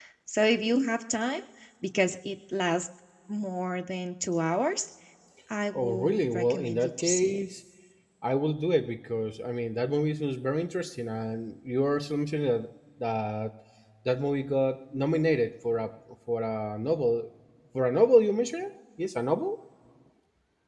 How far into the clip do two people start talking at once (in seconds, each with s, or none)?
5.7 s